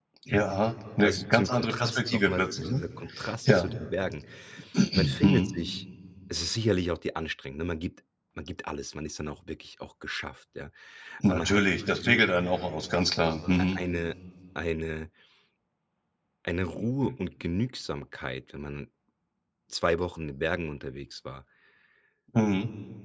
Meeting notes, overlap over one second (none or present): present